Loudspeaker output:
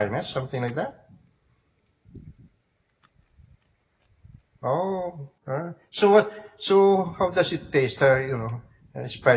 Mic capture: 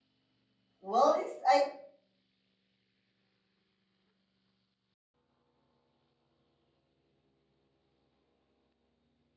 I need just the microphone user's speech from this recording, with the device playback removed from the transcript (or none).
well it's i